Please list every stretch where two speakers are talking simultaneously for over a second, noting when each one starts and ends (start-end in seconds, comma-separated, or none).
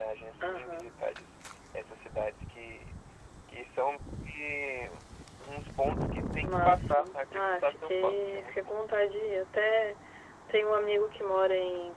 6.4-8.8